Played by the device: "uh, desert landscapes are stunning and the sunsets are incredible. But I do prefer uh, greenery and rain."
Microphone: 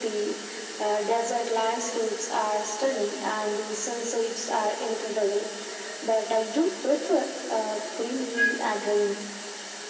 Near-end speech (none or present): none